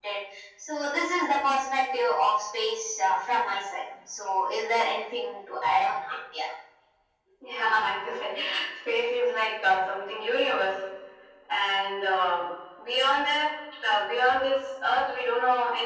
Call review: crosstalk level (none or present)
none